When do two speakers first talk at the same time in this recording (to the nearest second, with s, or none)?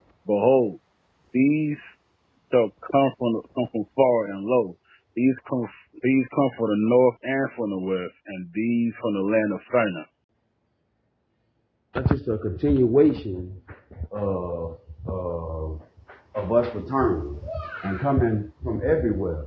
none